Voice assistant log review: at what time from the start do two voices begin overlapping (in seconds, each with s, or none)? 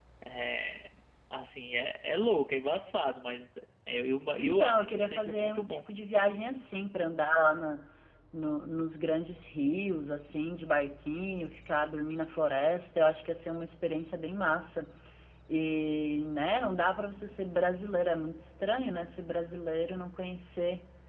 4.4 s